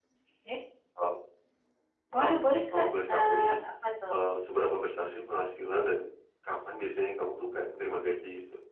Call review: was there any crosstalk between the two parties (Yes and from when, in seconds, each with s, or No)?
Yes, from 2.2 s